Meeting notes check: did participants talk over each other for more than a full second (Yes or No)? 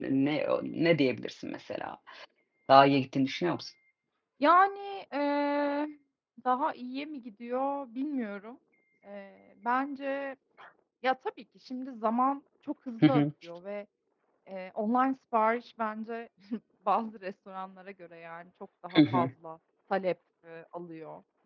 No